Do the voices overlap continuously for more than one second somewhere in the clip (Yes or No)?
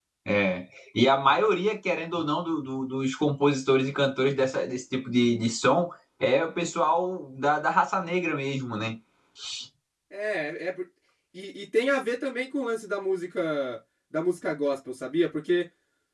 No